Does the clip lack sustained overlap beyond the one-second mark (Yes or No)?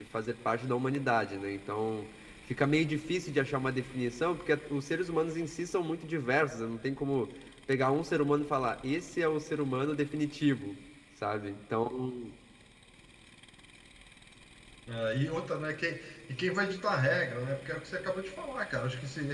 Yes